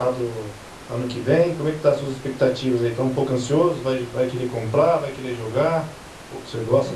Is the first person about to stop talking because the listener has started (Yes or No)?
Yes